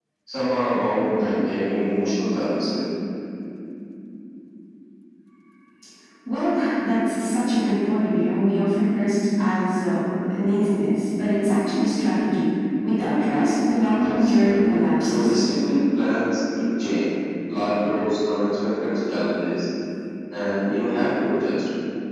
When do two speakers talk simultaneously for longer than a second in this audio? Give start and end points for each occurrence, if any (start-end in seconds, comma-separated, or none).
14.0-15.4